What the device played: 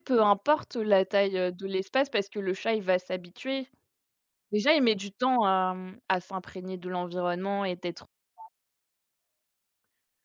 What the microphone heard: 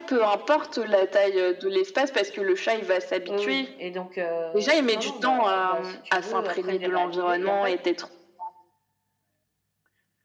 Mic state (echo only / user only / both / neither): both